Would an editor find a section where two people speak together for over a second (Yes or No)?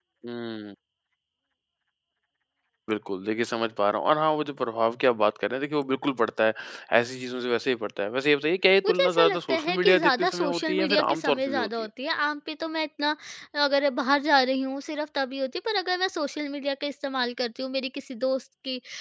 Yes